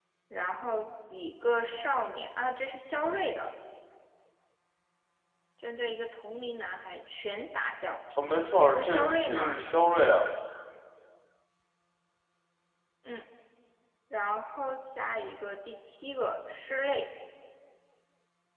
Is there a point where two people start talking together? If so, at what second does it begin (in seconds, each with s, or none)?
8.2 s